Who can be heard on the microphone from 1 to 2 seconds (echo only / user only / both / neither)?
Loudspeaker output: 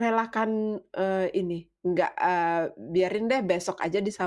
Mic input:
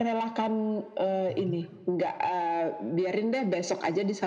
both